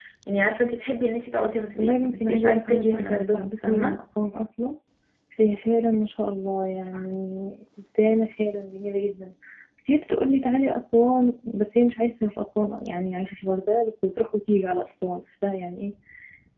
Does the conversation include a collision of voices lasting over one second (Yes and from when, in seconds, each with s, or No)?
Yes, from 1.8 s